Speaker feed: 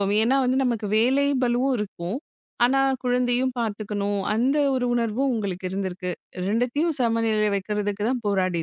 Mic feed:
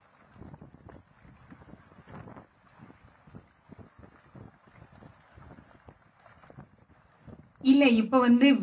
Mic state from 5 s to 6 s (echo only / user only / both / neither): neither